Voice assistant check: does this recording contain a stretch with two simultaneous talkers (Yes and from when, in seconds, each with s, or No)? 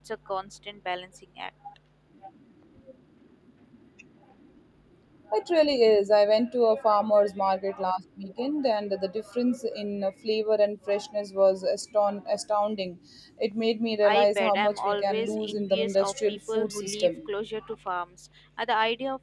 Yes, from 14.0 s